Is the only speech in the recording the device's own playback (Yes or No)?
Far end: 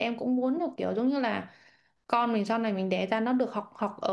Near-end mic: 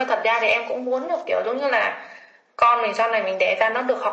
Yes